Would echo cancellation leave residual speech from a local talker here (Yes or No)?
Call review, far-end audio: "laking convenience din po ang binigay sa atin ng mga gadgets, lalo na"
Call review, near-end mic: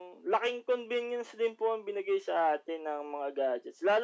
No